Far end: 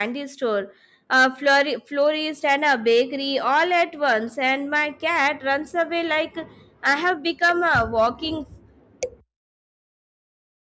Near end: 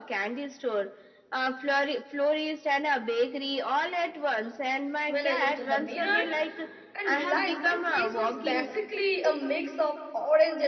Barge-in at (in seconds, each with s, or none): 5.0 s